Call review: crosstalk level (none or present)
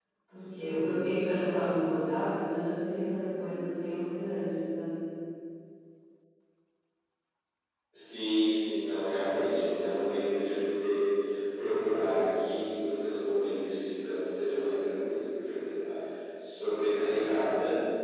none